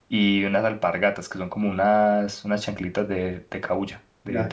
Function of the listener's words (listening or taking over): taking over